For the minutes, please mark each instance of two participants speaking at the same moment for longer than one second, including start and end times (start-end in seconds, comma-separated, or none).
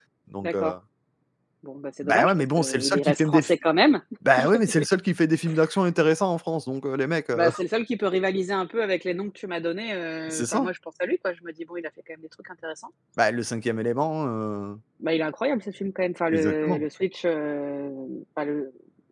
2.0-3.5